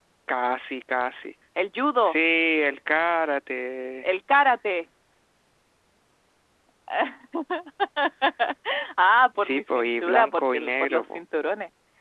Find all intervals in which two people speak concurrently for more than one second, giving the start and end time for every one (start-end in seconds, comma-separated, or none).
9.4-11.2